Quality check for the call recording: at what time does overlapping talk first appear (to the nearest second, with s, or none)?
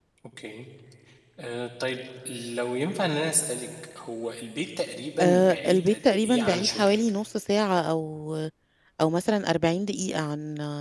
5 s